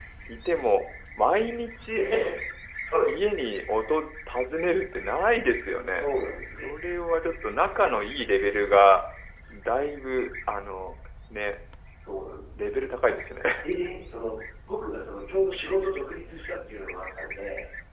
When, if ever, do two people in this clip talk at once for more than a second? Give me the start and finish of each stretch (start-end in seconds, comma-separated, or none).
none